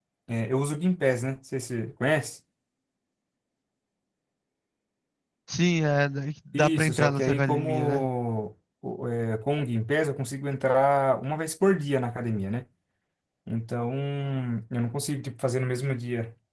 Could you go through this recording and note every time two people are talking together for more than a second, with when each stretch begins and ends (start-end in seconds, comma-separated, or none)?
6.5-8.0